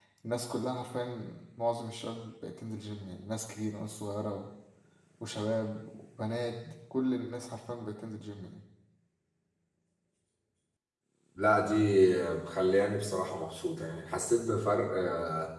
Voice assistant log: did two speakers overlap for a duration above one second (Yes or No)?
No